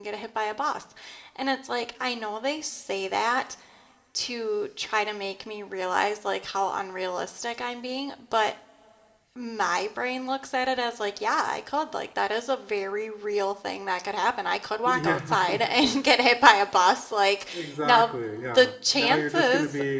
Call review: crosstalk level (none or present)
present